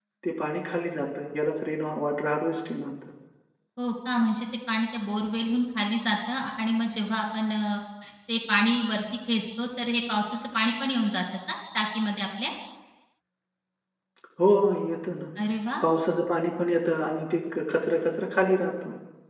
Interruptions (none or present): none